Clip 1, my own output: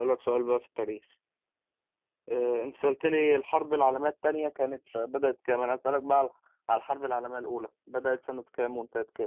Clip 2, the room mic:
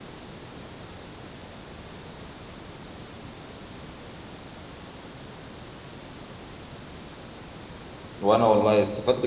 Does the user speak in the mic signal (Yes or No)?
Yes